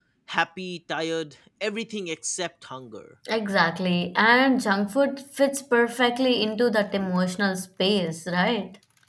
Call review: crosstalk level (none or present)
none